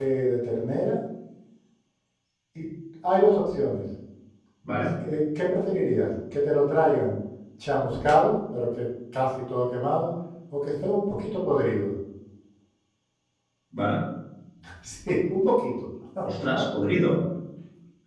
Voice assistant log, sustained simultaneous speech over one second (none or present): none